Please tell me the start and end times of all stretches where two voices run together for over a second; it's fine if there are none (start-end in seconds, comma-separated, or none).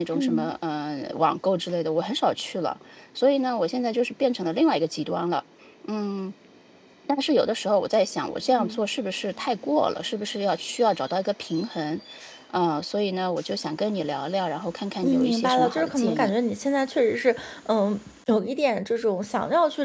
15.0-16.3